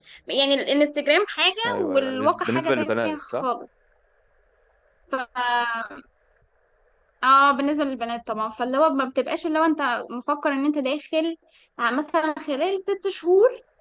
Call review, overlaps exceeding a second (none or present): present